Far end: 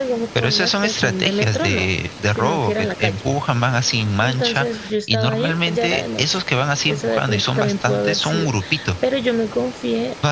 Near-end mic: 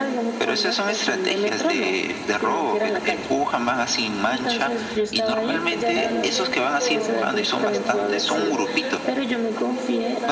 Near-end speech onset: 5.9 s

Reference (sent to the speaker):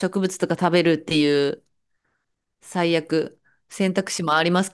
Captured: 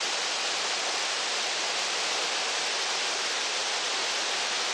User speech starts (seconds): none

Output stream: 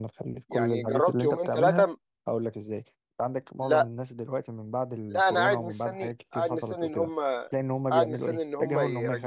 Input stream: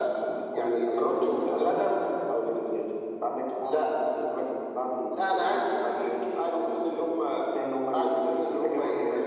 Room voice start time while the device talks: none

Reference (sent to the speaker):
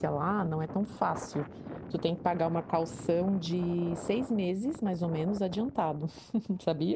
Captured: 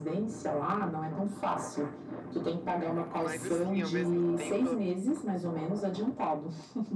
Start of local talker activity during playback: 3.2 s

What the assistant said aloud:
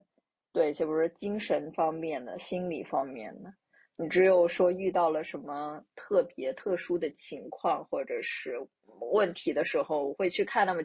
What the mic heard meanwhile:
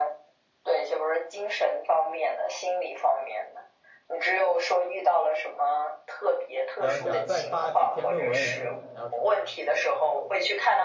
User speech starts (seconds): 6.8 s

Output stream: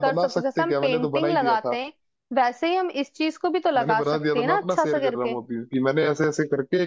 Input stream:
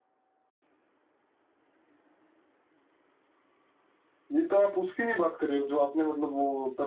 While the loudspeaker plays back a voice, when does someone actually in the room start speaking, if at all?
4.3 s

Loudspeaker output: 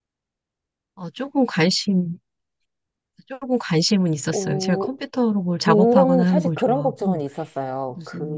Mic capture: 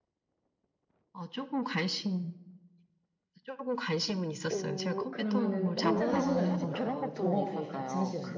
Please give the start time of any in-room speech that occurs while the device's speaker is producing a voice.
5.1 s

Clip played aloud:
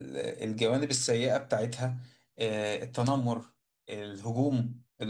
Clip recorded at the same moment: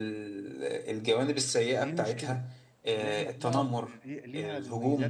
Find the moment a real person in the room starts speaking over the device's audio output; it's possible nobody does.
1.7 s

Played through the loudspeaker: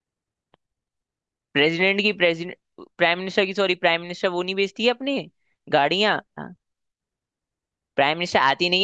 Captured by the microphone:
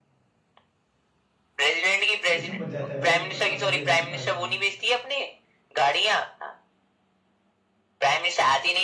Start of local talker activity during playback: 2.3 s

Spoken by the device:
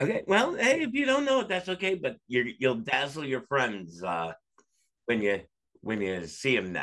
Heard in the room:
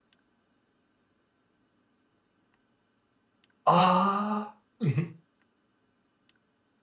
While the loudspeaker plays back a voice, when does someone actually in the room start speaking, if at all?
3.6 s

